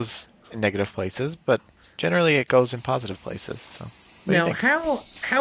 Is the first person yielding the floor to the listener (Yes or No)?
Yes